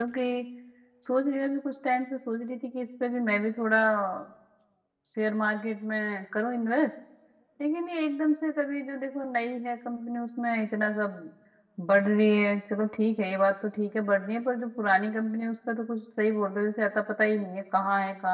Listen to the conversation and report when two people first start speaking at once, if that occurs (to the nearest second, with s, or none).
none